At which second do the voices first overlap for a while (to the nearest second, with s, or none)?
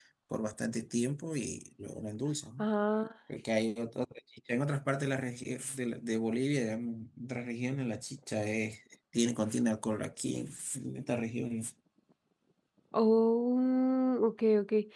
none